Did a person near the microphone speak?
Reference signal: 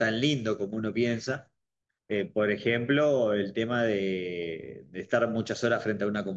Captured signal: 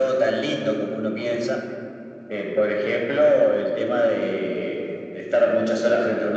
No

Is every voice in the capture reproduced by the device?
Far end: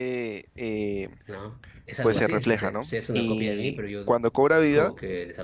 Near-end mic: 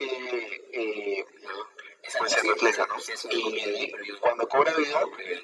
Yes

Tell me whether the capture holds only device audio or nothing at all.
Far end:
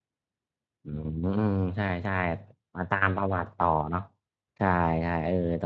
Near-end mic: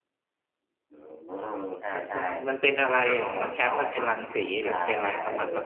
No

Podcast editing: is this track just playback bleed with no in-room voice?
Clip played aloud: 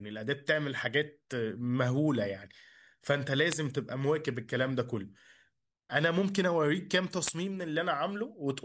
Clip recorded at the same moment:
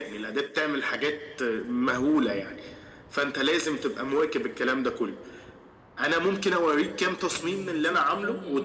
No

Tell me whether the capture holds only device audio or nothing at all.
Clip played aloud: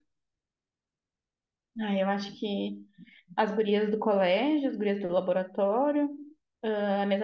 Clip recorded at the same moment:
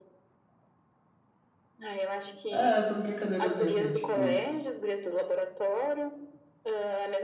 No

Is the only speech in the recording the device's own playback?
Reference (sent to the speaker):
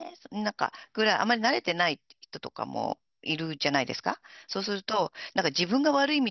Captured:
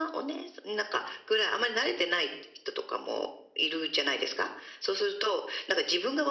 Yes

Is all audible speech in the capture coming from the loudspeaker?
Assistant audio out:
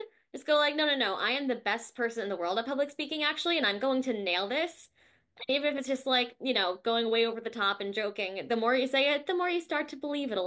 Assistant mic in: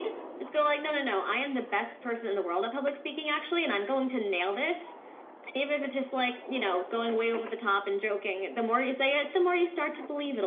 Yes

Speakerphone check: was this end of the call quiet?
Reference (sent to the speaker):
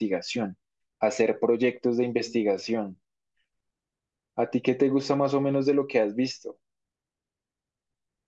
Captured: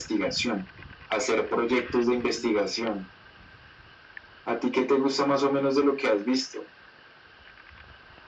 Yes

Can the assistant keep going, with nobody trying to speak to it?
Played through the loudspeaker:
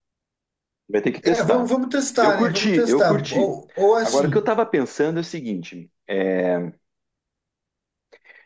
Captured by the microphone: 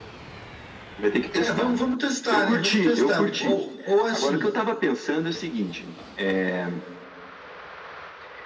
Yes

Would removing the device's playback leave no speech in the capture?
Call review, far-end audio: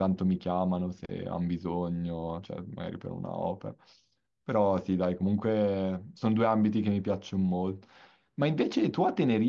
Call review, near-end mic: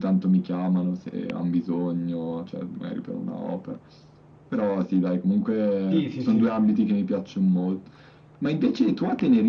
No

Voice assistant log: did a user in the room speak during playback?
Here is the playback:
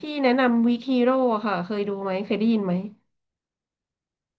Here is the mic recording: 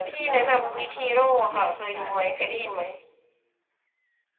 Yes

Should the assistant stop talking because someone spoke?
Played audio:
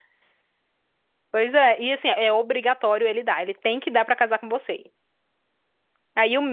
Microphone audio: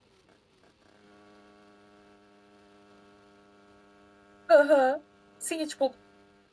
Yes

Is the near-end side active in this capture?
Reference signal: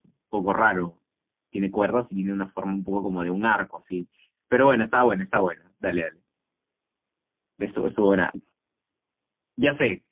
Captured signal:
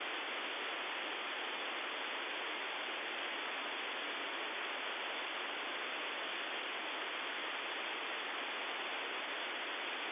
No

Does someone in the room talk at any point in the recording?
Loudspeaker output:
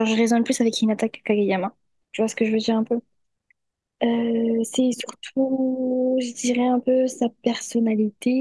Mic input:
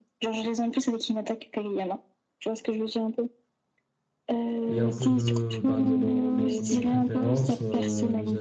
Yes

